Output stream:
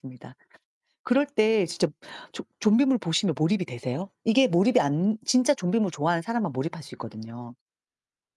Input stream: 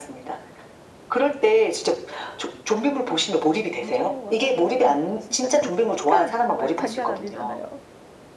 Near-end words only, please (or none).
아 맞아요, 맞아요. 진짜 그 쾌감 정말 장난 아니잖아요.